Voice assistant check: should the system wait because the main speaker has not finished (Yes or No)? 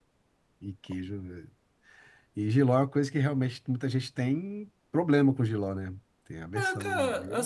No